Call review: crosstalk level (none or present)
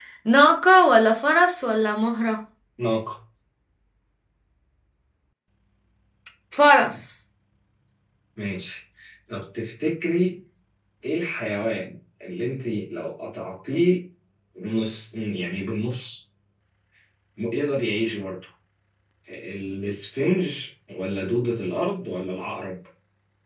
none